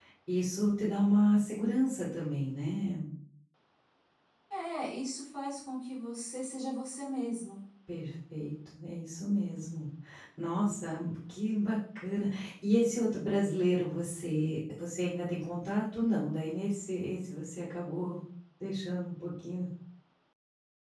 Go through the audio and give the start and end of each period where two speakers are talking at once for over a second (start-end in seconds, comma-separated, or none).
none